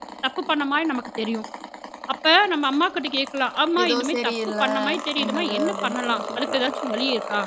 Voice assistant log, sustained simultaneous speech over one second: present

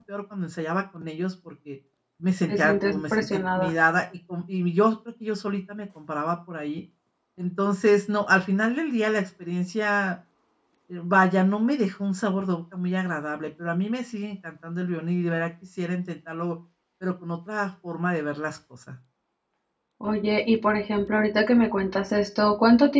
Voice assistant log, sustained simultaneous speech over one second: present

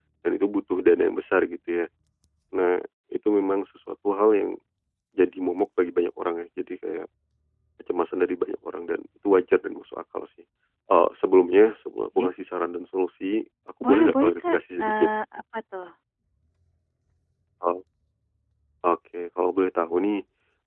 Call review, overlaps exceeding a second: present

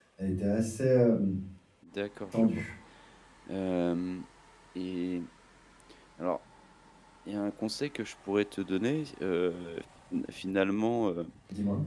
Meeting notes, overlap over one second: none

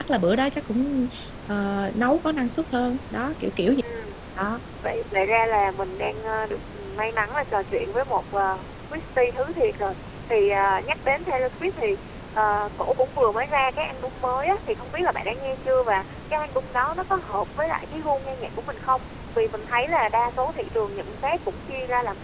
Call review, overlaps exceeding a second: none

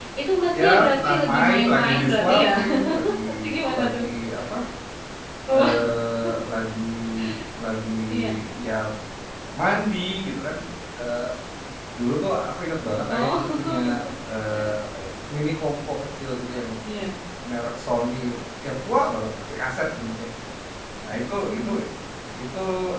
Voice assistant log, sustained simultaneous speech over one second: present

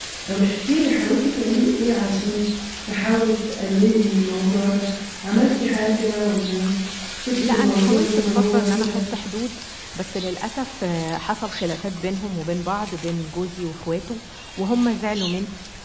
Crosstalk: present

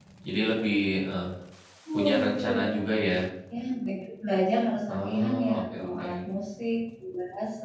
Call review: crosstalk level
present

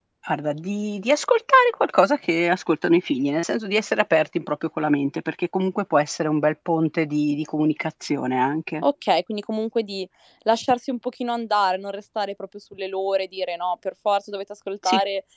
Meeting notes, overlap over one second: none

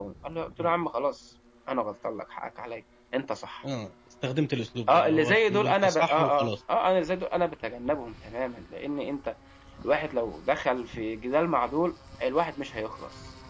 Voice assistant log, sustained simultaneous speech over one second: present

